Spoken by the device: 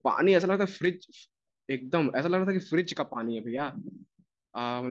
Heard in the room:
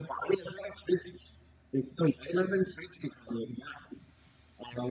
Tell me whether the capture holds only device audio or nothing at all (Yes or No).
Yes